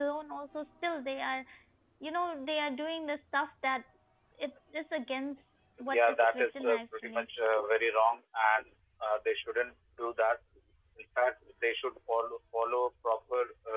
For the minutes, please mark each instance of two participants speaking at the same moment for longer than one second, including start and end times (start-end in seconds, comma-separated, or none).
5.9-7.2